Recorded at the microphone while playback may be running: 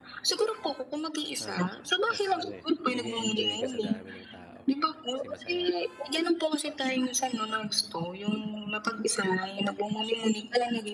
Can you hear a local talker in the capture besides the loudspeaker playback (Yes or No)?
Yes